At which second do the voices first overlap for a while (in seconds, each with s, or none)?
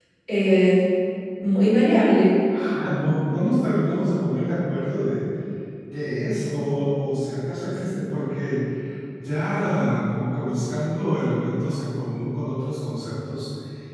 none